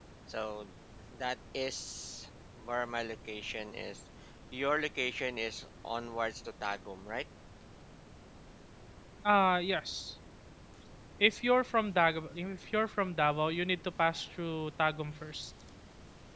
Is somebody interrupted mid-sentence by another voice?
No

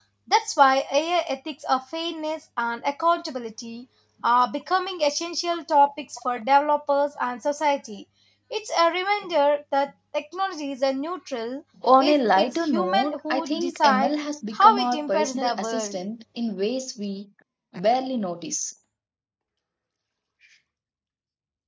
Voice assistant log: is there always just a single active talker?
No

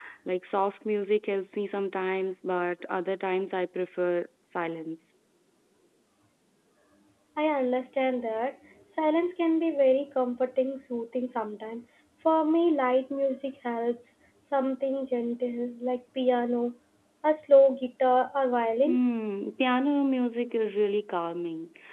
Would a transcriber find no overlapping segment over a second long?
Yes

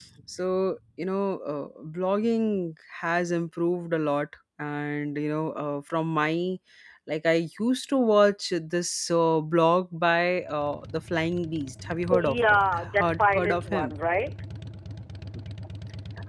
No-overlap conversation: No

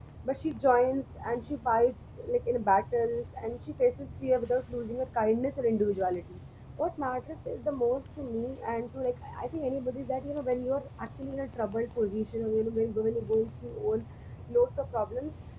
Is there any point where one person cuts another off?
No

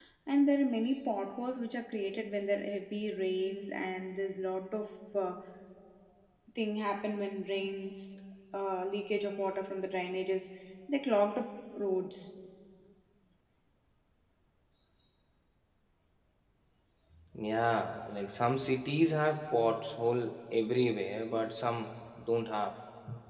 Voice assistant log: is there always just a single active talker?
Yes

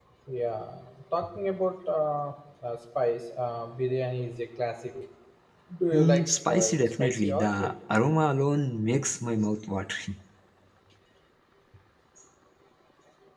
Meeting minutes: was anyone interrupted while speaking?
Yes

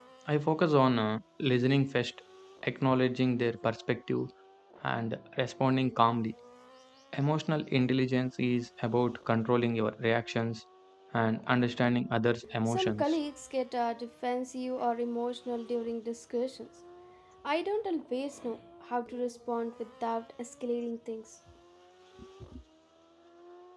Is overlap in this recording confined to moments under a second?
Yes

